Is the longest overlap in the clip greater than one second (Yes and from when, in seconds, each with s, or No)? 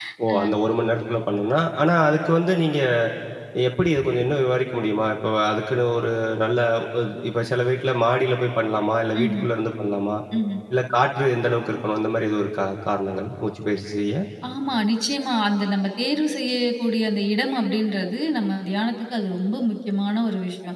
No